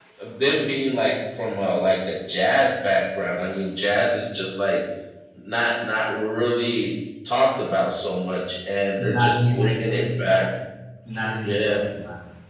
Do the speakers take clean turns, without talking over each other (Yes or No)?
No